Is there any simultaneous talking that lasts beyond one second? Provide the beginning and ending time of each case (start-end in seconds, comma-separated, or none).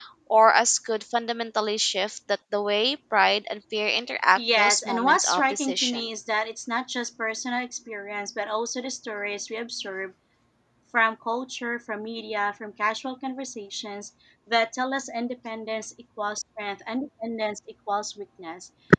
4.4-6.0